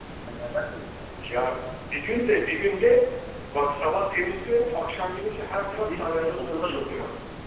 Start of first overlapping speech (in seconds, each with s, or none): 5.5 s